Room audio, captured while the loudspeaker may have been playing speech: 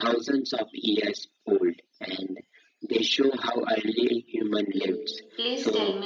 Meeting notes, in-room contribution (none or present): present